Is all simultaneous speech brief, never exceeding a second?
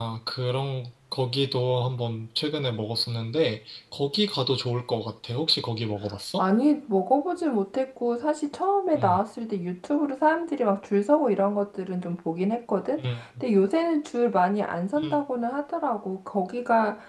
Yes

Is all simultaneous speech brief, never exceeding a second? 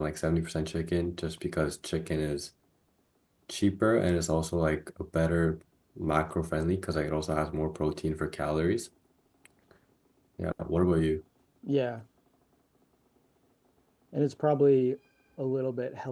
Yes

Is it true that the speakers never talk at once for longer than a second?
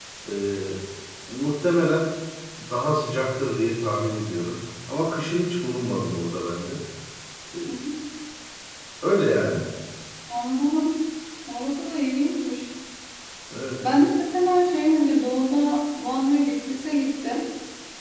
Yes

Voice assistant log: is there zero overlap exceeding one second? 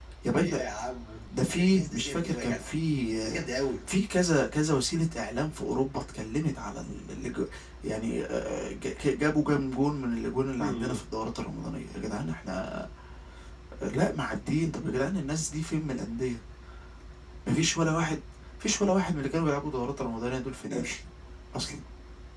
No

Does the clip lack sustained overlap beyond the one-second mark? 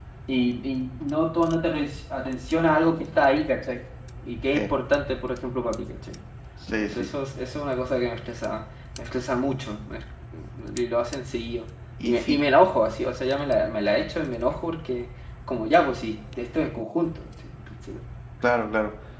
Yes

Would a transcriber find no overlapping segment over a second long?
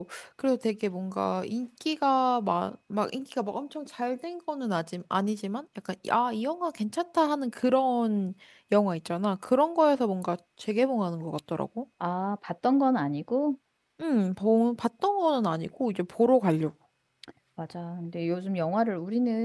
Yes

